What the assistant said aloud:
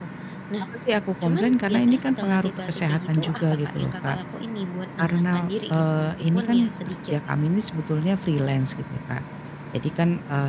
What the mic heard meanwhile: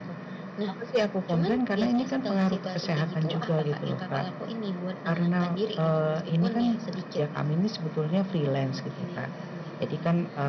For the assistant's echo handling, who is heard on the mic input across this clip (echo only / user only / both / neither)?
both